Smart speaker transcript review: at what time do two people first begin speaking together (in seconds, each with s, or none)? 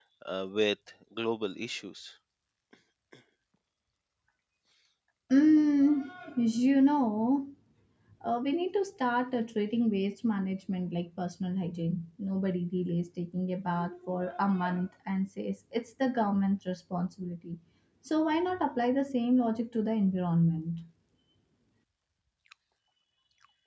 none